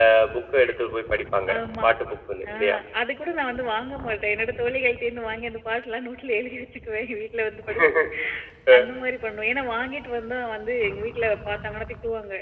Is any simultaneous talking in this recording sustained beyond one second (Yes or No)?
No